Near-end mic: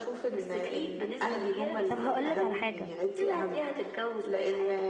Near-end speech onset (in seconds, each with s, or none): 1.9 s